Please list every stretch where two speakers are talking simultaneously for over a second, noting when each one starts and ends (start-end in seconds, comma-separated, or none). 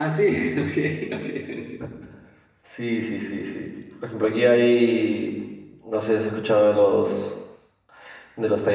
none